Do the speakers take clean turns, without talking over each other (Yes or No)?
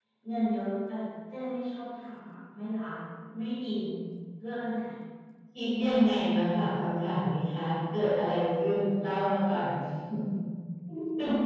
Yes